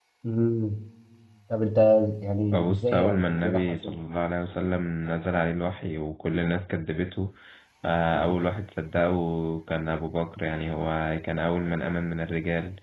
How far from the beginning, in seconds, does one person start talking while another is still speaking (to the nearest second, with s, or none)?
3 s